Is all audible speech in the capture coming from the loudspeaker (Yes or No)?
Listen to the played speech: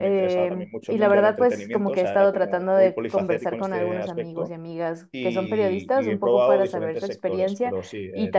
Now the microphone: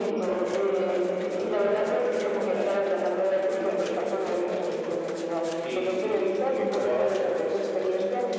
Yes